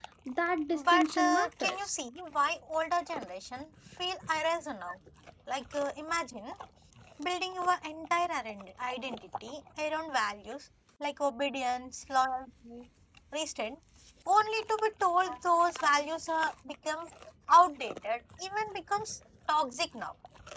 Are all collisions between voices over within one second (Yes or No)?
No